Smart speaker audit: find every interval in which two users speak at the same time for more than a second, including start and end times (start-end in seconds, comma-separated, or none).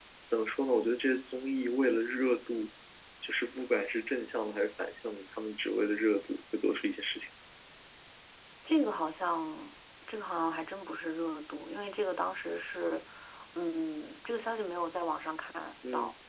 none